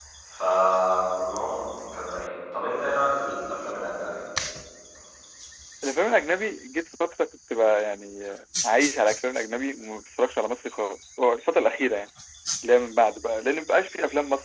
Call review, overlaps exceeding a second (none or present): none